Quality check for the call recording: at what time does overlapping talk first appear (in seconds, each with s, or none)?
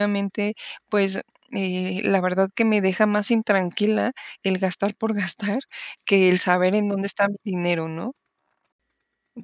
none